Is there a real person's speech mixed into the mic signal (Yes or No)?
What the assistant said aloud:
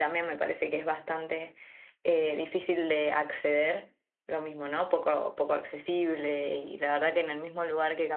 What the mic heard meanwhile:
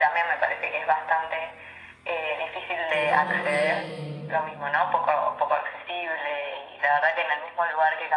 Yes